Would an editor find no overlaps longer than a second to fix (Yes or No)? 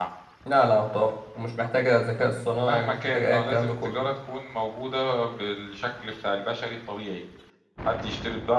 No